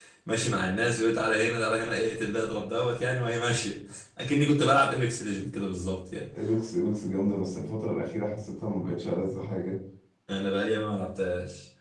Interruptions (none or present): none